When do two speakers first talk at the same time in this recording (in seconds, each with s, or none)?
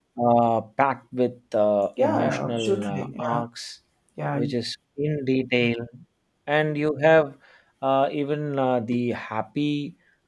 2.0 s